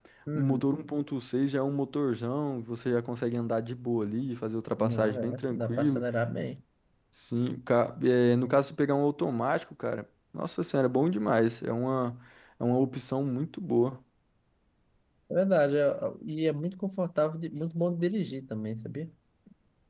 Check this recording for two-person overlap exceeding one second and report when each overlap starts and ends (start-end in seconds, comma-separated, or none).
4.8-6.1